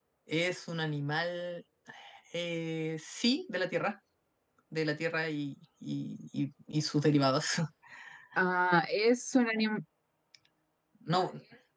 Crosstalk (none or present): none